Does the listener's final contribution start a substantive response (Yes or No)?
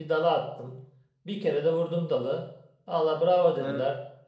No